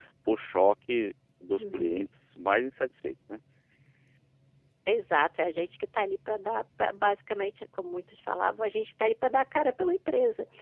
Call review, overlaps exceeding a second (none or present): none